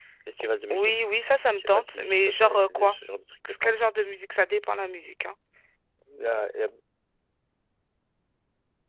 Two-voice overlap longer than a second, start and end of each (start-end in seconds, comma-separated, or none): 1.6-2.9